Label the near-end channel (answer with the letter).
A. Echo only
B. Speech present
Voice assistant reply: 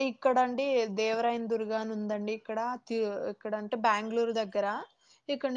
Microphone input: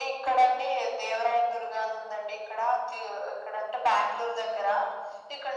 A